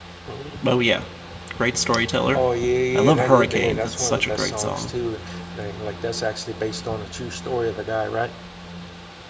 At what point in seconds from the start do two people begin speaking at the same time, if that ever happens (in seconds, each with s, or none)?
3.0 s